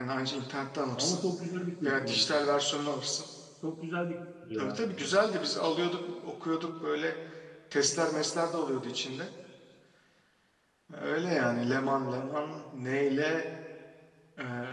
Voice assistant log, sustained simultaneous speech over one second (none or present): none